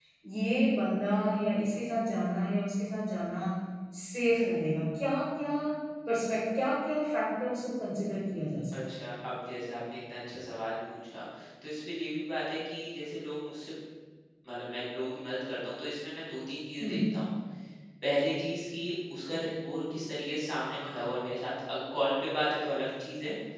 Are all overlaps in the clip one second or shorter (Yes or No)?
Yes